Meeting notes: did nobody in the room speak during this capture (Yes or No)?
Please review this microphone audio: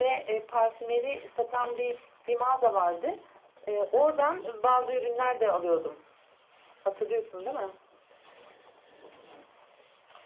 Yes